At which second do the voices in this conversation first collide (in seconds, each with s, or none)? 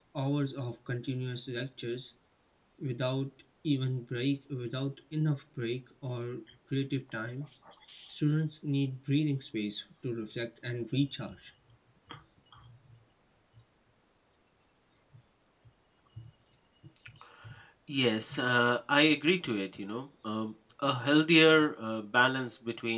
none